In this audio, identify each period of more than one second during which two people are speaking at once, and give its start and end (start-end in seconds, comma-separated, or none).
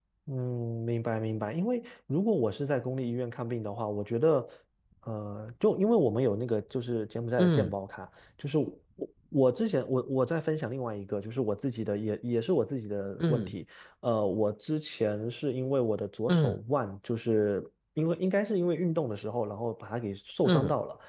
none